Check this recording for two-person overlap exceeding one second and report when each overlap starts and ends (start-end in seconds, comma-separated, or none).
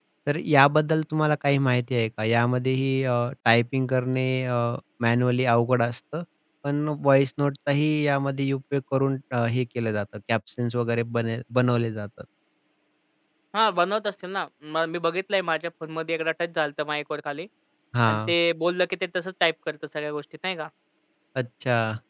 none